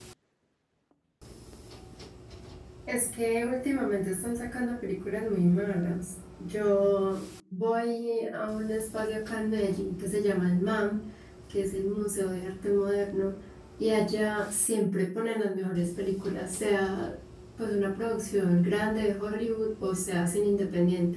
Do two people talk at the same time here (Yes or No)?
No